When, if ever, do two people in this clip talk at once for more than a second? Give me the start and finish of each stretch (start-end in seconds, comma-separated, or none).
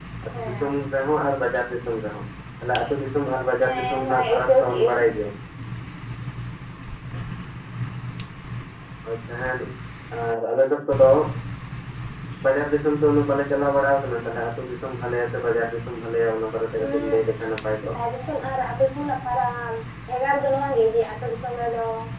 3.6-5.0